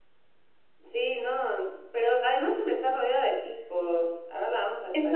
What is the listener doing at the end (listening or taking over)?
taking over